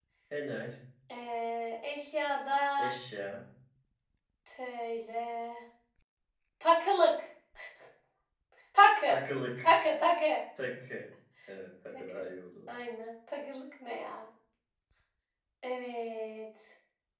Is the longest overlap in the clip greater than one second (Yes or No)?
No